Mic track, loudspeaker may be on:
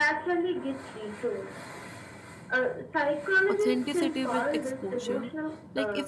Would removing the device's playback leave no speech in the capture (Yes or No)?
No